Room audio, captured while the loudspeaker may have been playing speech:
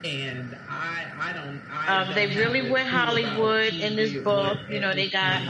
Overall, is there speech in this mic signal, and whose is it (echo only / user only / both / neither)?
both